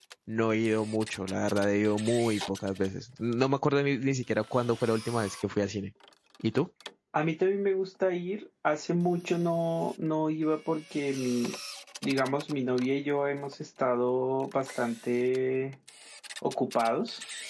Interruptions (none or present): none